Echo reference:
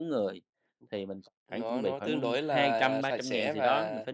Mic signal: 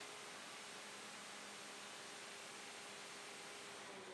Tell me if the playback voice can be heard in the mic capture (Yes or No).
No